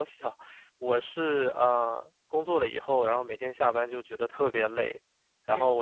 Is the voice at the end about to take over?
No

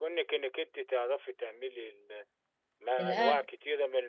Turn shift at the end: No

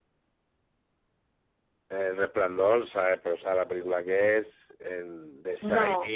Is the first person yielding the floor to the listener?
No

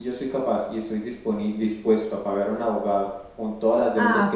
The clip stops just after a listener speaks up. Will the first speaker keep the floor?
No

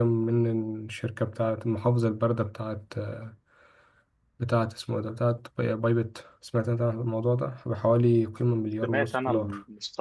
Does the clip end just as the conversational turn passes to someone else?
Yes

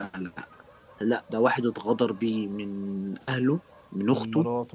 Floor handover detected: No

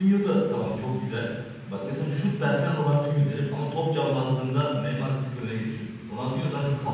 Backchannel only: Yes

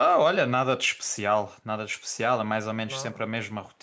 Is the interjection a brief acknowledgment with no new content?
Yes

